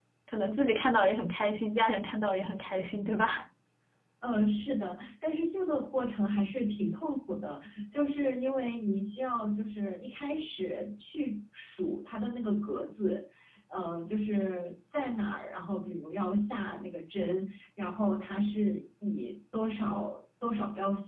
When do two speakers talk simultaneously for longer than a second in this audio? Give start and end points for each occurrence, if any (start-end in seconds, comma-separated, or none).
none